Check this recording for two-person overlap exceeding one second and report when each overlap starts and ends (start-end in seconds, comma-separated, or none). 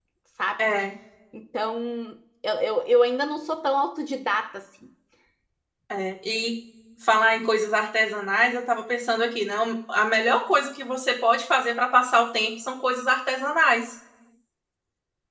none